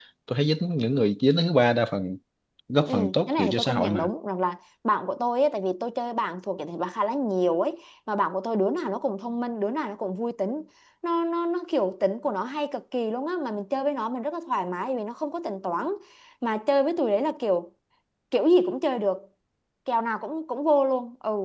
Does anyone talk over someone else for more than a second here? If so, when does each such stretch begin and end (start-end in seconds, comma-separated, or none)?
2.9-4.1